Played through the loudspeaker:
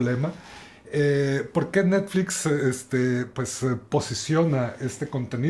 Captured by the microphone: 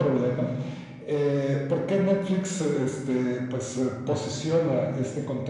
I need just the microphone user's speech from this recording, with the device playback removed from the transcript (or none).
none